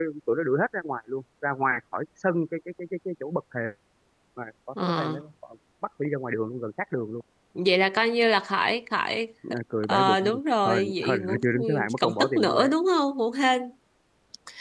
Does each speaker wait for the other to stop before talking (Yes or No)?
No